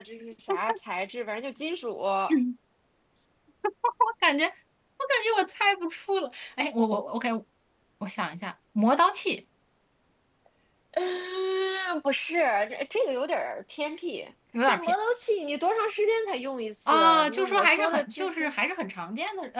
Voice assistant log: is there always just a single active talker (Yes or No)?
No